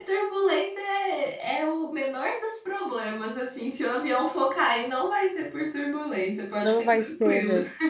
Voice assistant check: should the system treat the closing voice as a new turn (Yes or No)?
Yes